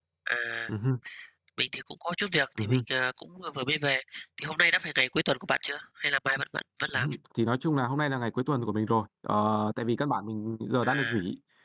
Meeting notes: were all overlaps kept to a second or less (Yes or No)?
Yes